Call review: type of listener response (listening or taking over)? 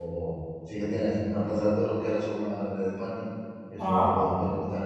listening